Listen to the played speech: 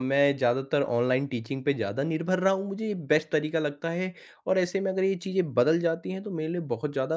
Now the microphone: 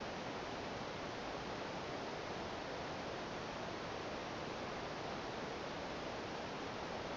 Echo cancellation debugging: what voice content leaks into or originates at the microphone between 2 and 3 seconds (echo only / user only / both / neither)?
neither